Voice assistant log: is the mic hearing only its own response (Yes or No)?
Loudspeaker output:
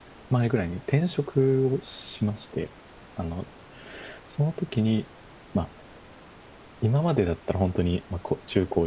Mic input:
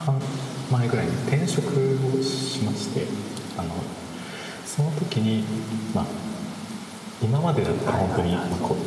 No